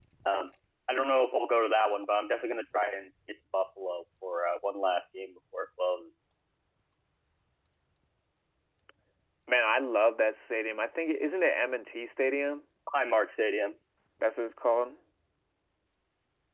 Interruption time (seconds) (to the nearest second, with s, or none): none